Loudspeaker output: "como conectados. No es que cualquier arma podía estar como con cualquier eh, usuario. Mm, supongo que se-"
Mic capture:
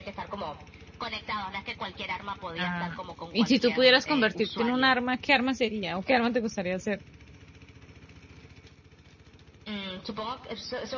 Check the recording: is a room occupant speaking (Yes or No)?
Yes